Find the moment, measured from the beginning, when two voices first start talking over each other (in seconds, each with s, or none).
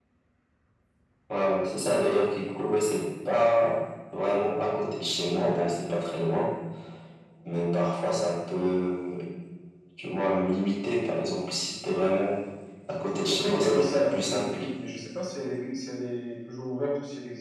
13.3 s